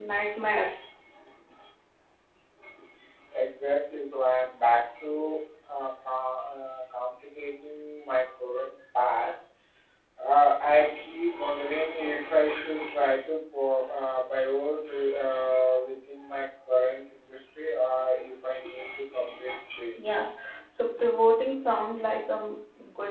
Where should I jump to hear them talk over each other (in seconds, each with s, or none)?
none